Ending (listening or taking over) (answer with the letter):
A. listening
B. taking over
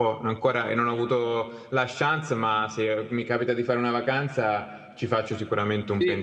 B